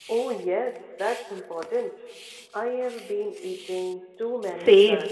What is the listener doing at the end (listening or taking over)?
taking over